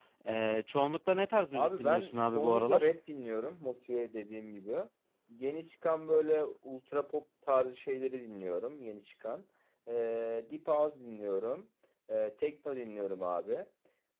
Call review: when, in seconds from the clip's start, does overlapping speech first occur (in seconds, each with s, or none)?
1.5 s